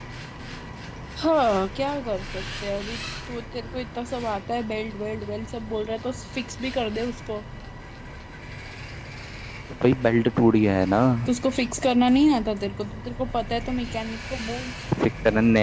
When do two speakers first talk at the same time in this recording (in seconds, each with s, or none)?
none